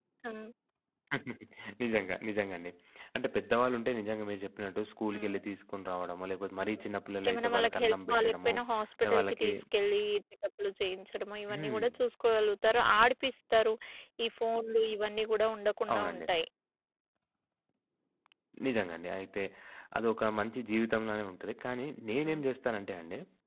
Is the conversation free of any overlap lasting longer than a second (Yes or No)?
No